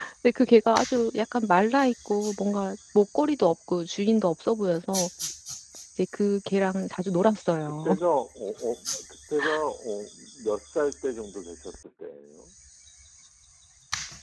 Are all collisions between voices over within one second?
Yes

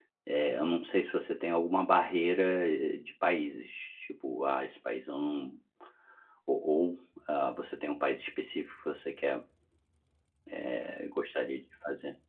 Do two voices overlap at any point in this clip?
No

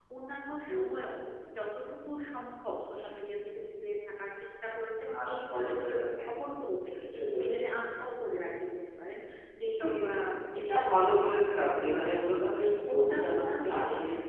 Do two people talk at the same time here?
Yes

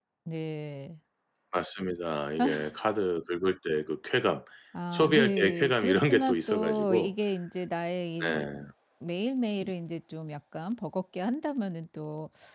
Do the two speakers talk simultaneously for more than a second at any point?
Yes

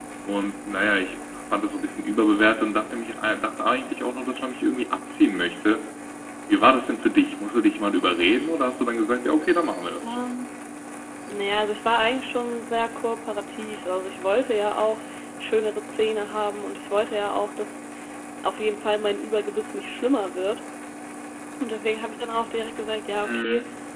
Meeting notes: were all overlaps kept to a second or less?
Yes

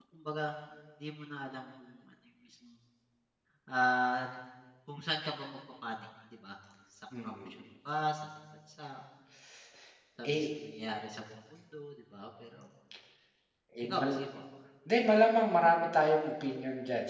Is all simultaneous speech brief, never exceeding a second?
Yes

